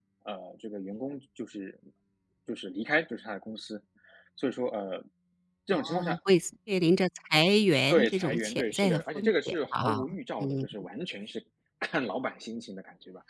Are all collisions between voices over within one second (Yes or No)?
No